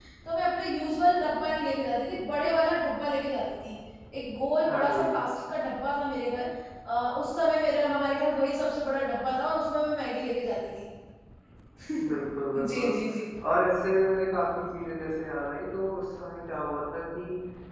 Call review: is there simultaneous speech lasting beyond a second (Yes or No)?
No